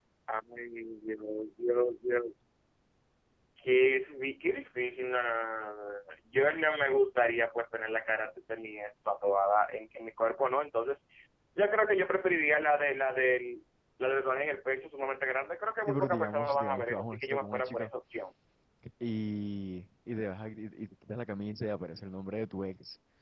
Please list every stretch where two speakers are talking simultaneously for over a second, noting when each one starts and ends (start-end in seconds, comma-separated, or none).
15.9-17.8